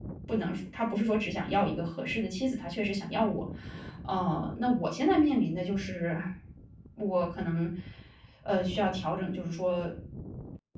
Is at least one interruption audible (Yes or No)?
No